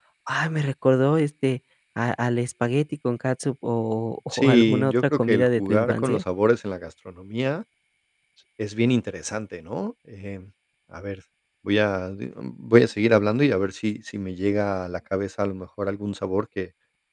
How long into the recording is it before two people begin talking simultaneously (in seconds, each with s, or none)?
4.3 s